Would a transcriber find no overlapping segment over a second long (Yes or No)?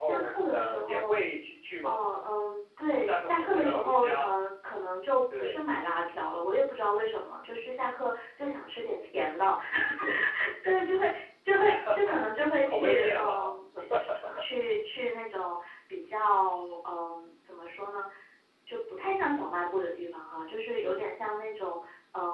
No